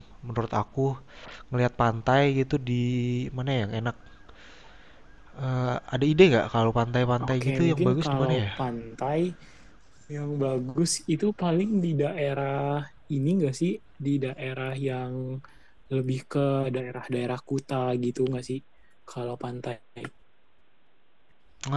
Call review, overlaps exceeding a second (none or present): present